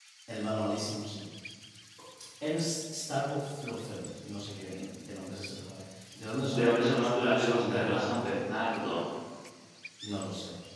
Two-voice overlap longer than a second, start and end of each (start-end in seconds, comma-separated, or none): 6.5-8.4